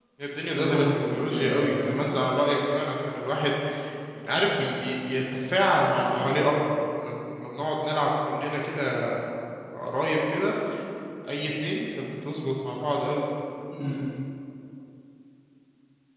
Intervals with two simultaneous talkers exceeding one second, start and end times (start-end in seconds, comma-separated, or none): 0.5-2.0